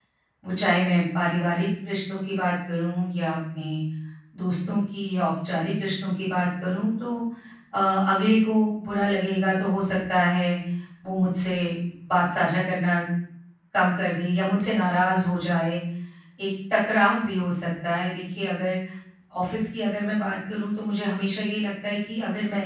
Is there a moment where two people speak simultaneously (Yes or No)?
No